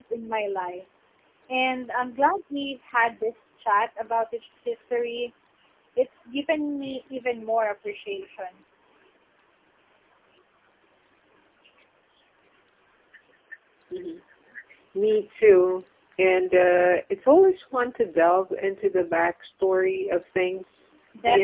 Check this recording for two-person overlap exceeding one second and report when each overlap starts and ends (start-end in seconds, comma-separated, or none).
none